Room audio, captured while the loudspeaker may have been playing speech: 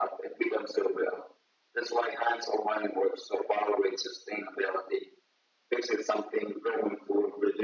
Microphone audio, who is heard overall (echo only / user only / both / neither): echo only